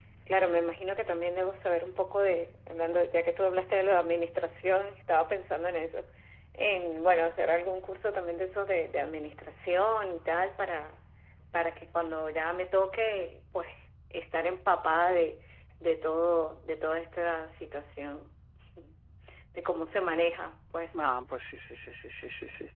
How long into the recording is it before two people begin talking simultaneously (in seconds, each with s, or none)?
none